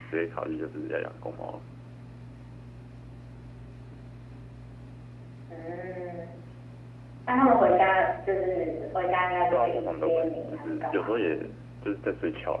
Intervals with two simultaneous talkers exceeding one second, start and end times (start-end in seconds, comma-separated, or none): 9.5-11.3